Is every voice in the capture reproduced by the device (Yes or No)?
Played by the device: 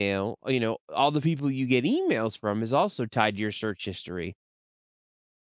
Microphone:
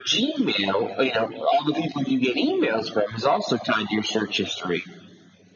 Yes